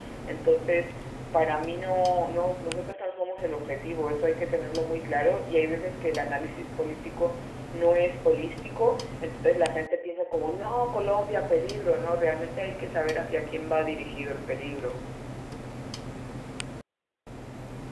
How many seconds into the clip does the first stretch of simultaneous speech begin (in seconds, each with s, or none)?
none